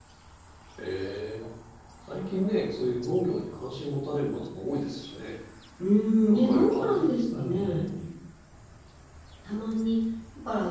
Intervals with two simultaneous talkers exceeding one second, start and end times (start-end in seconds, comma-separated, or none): 6.3-7.8